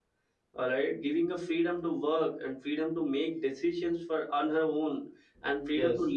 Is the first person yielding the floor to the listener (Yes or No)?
No